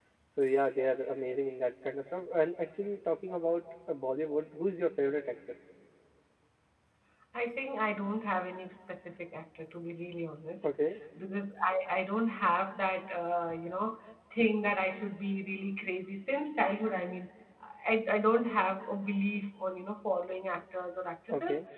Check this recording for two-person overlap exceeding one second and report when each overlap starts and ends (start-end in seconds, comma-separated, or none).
none